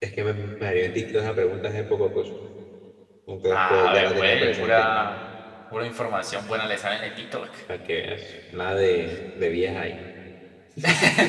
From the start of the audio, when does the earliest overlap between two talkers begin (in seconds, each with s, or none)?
3.5 s